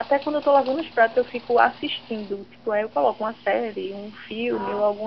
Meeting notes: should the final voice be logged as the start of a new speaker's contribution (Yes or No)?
No